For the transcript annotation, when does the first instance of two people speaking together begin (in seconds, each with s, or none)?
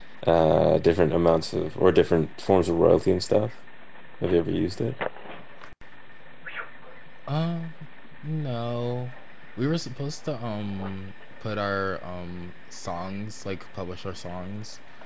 none